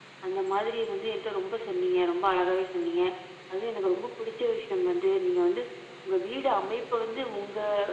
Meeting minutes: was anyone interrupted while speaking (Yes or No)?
No